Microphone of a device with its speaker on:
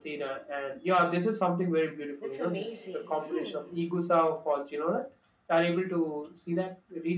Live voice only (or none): that's amazing. Hmm.